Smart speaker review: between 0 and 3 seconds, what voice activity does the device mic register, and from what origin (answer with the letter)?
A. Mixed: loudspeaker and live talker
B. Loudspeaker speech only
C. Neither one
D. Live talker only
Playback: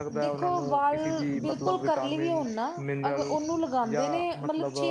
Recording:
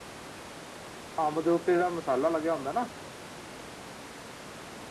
D